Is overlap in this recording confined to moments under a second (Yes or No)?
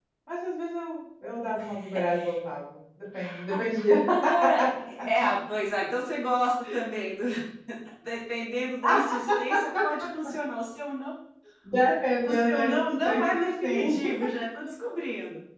No